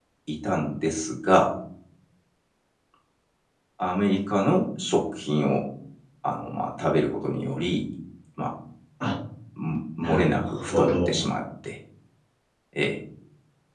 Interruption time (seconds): 10 s

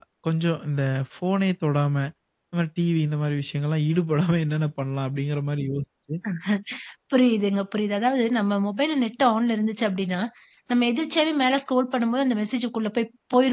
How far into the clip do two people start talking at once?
none

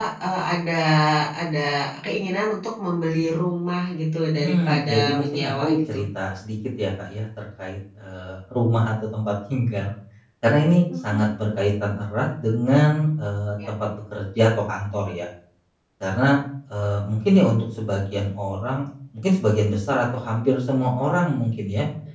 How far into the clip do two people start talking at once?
4 s

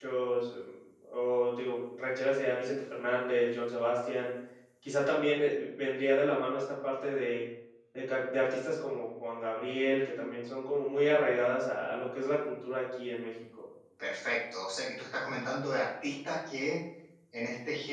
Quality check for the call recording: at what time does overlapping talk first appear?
none

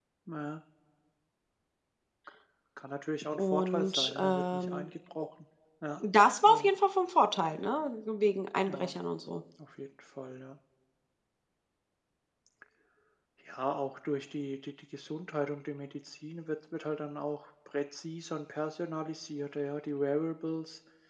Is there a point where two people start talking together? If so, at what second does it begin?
3 s

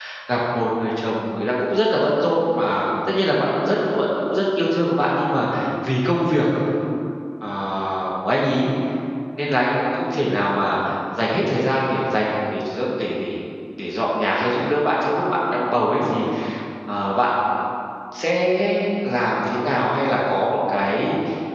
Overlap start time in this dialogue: none

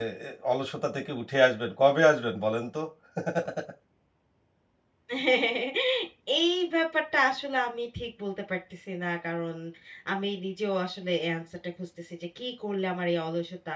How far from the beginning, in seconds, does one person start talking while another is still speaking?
none

